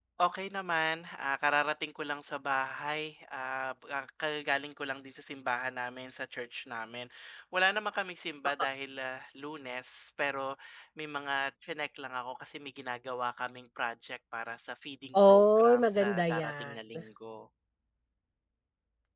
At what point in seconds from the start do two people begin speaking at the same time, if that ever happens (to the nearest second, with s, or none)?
15 s